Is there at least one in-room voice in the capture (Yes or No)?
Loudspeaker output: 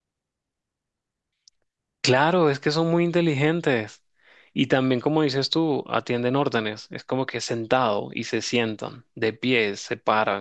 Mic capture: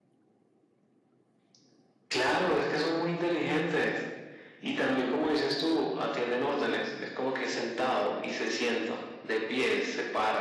No